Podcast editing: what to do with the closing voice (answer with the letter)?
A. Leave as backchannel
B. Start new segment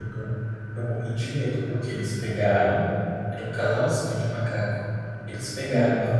A